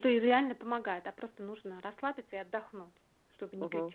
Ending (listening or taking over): taking over